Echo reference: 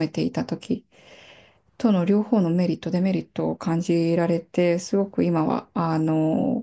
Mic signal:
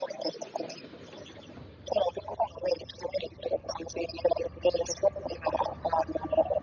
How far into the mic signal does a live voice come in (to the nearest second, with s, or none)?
none